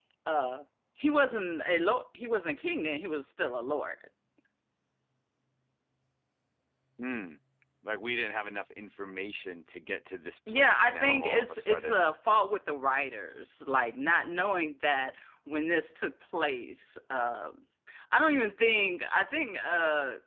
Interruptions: present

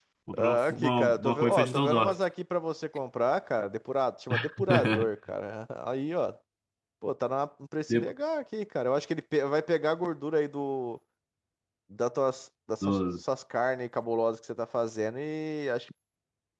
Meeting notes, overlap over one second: present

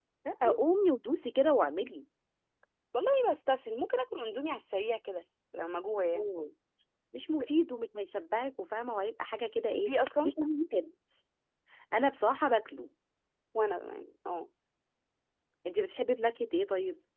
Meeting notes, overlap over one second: none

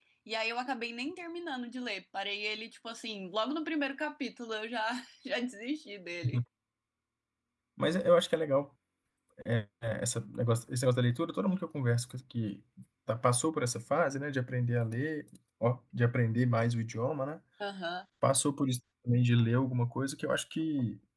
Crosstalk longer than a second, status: none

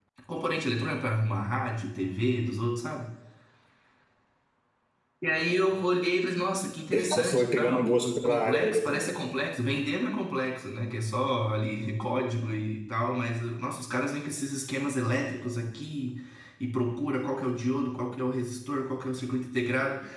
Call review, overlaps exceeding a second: present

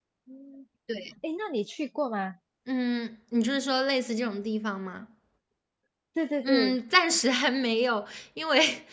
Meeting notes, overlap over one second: none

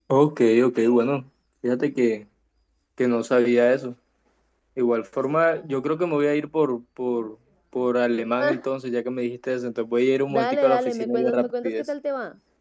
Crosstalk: present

